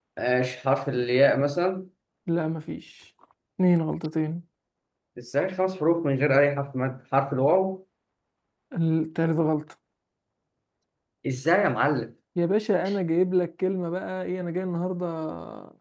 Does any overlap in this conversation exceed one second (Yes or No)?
No